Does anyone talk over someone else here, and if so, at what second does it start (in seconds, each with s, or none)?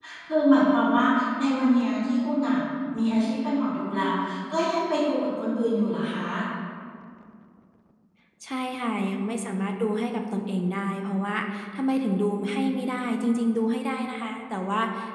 none